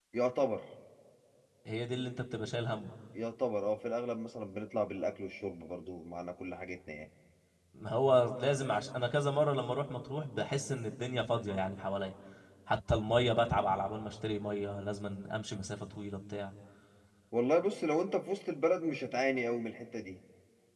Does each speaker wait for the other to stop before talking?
Yes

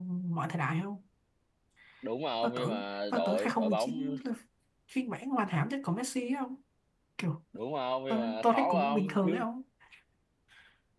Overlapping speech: Yes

